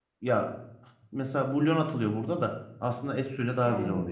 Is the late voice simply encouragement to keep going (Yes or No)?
No